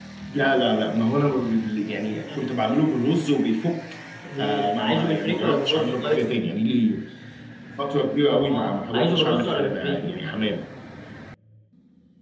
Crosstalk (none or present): present